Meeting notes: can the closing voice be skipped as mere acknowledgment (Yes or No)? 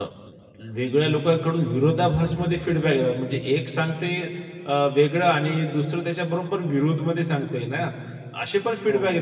Yes